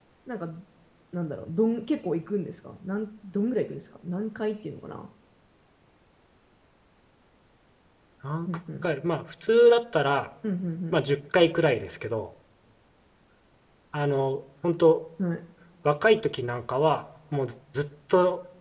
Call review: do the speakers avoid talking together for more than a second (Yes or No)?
Yes